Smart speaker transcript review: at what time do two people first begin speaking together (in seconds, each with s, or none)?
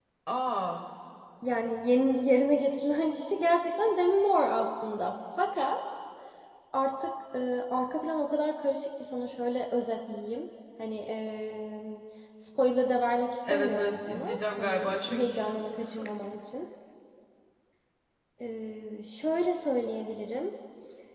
13.5 s